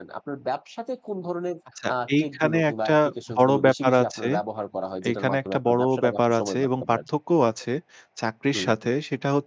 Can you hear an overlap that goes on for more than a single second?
Yes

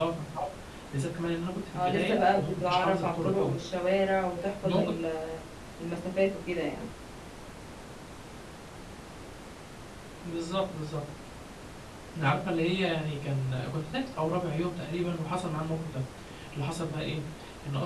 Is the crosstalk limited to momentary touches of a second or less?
No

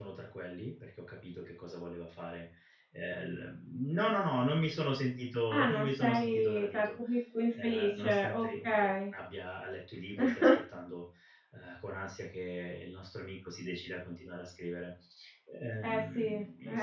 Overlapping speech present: Yes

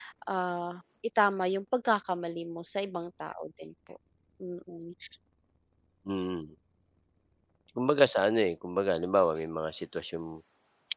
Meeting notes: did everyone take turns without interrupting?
Yes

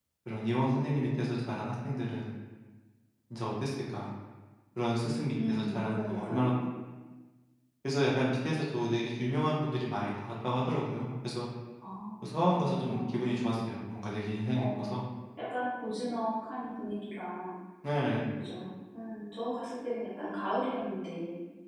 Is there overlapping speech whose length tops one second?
Yes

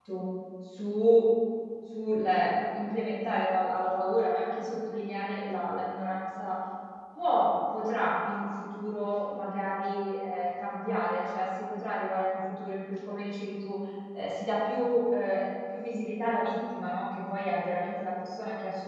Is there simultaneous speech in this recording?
No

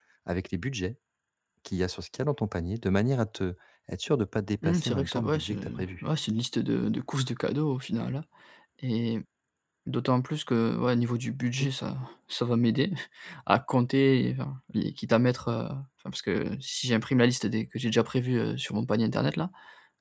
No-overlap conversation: No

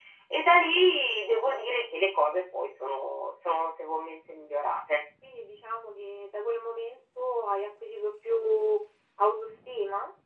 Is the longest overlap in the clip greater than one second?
No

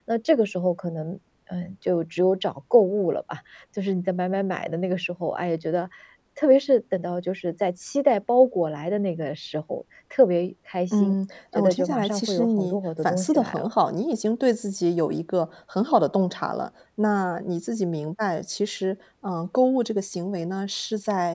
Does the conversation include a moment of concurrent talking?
Yes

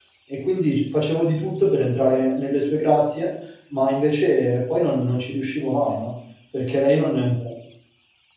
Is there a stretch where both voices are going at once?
No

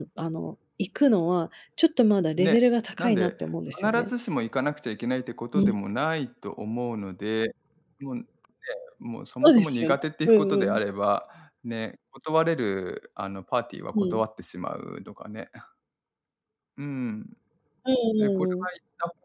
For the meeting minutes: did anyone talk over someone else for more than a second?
Yes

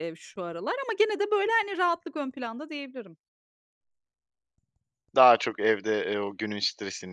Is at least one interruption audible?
No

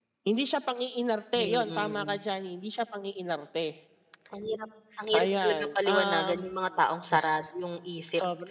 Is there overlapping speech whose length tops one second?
Yes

